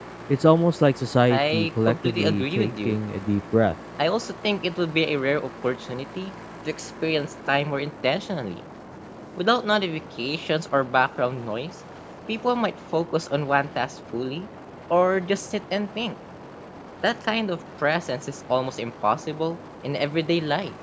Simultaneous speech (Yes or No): Yes